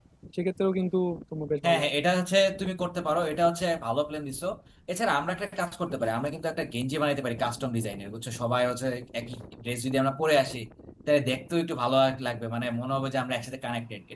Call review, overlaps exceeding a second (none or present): none